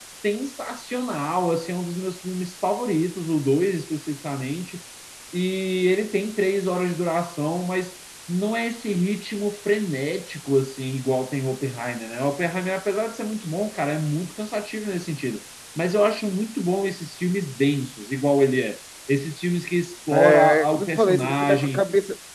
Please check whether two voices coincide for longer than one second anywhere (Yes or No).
Yes